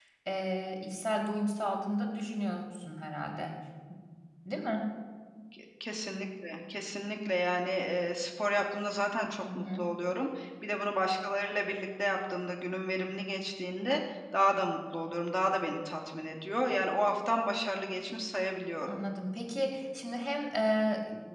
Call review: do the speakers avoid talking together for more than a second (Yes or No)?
Yes